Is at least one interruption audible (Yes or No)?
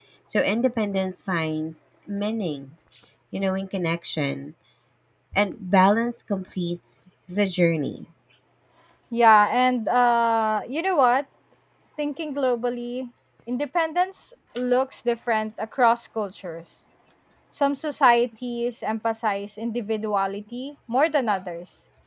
No